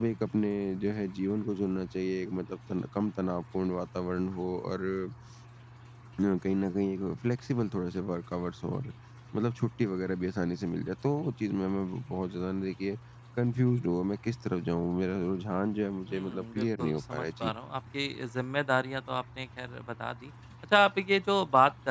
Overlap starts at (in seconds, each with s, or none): 16.1 s